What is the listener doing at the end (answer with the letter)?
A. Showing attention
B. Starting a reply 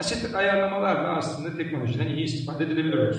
B